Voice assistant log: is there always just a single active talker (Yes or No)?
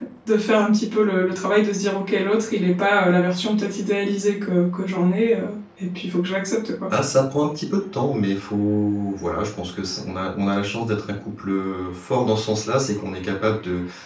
Yes